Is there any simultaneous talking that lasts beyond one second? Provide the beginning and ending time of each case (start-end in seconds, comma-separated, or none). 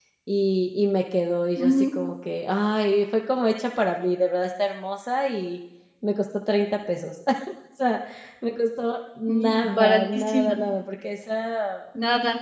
9.3-10.6